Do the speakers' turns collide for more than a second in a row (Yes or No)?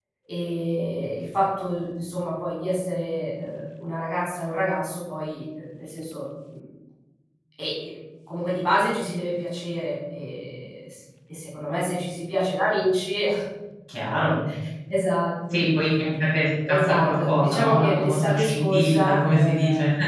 Yes